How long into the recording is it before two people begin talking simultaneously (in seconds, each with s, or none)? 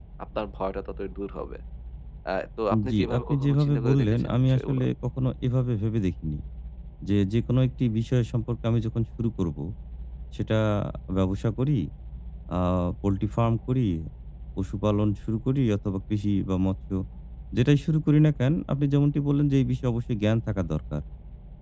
2.9 s